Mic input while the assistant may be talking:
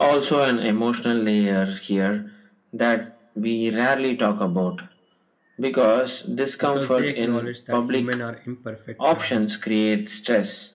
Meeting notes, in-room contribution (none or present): present